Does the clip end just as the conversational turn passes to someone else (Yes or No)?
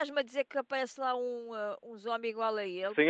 Yes